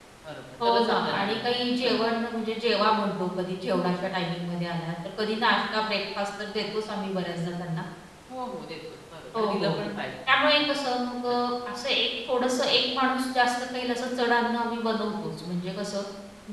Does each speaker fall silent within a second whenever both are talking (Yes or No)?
No